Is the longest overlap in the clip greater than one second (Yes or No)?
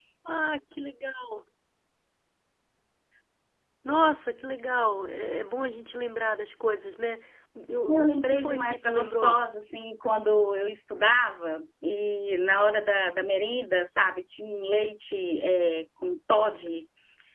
Yes